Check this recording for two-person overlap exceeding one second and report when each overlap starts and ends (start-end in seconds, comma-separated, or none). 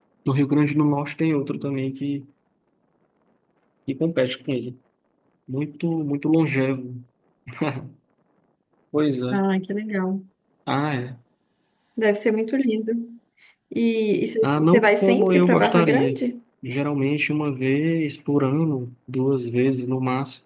14.4-16.2